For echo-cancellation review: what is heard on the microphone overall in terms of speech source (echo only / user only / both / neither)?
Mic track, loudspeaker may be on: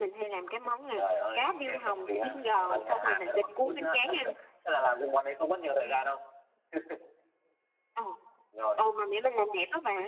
echo only